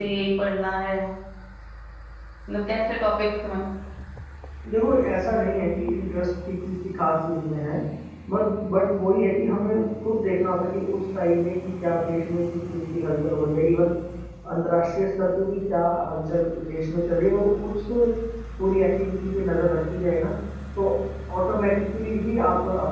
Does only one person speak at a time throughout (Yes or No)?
Yes